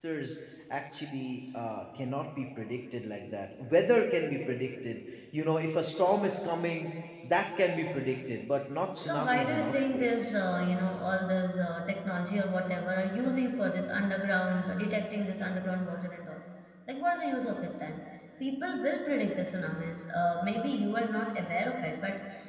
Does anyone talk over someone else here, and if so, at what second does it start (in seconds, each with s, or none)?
9.0 s